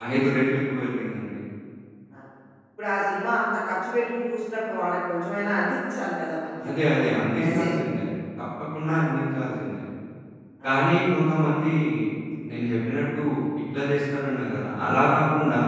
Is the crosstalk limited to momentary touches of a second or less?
Yes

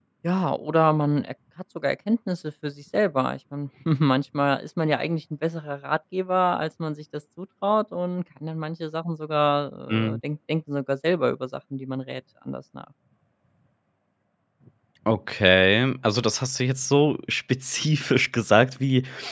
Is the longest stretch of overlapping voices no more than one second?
Yes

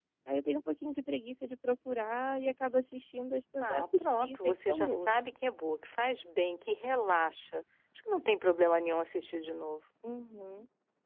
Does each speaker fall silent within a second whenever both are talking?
No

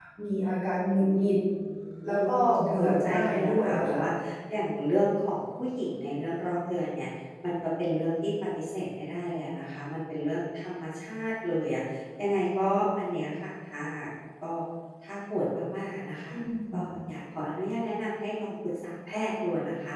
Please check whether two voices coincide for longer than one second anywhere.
Yes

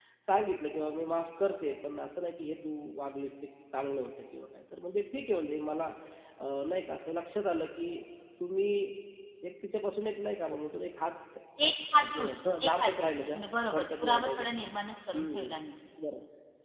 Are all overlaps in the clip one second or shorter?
No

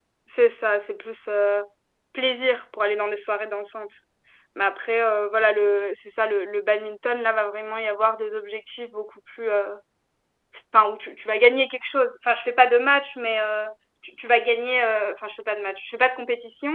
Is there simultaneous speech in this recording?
No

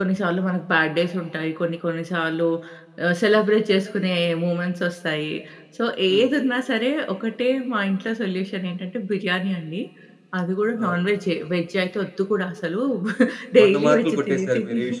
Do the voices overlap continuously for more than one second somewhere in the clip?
Yes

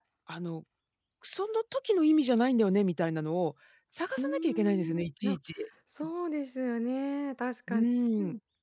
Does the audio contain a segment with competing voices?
Yes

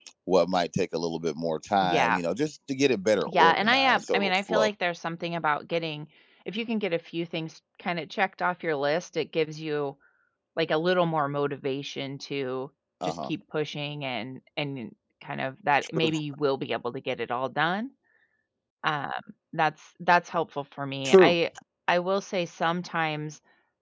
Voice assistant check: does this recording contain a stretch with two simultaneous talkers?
Yes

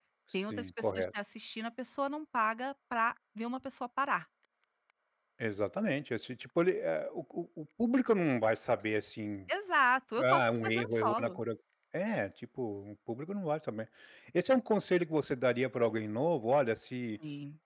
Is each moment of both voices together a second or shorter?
No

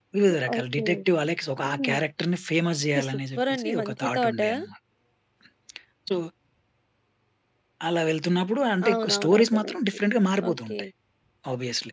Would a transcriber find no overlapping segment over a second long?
No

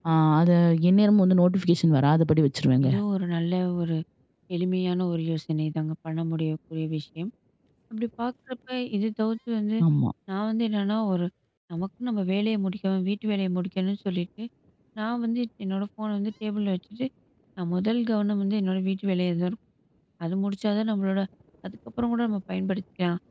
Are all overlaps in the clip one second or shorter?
Yes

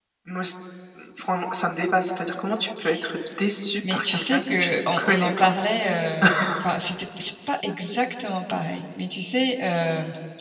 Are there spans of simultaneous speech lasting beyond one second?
Yes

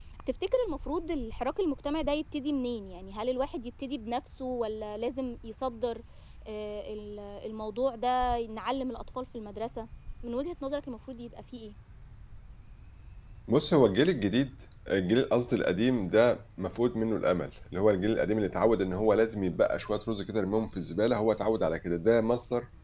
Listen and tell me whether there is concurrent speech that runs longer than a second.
No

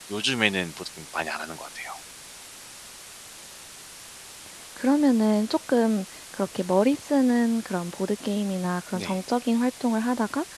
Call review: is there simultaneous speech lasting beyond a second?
No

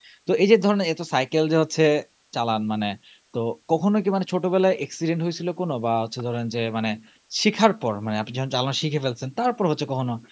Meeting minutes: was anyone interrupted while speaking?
No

